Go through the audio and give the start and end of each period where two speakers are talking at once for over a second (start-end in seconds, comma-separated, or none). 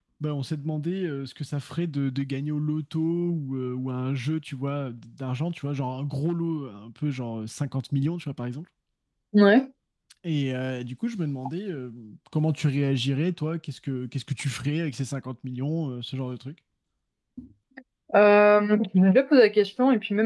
none